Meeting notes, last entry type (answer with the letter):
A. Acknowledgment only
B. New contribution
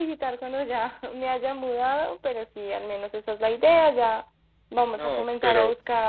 A